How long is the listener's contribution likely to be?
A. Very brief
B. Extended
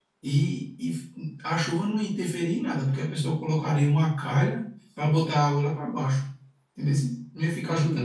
B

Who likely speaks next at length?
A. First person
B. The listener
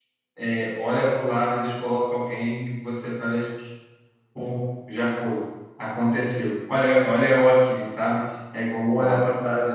A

